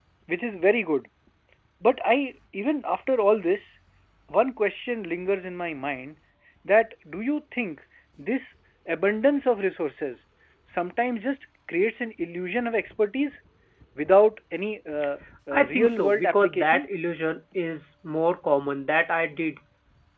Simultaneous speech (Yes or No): Yes